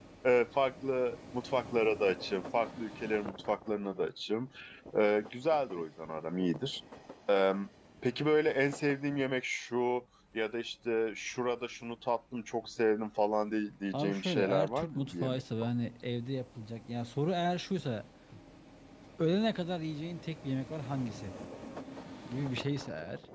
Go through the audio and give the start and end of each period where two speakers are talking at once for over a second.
13.9-15.4

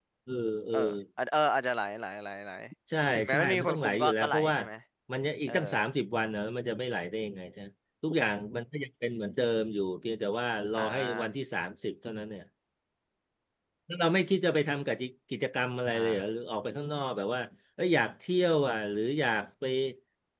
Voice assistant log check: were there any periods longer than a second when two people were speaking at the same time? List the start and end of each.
3.1-4.6

